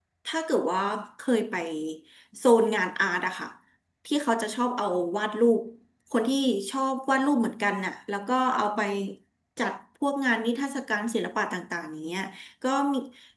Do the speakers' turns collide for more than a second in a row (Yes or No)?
No